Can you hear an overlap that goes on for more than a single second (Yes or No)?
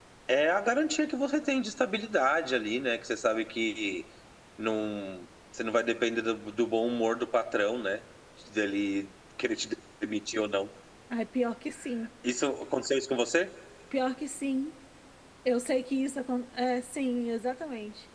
No